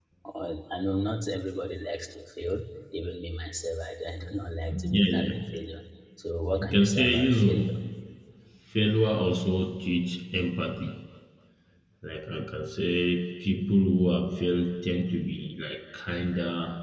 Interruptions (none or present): present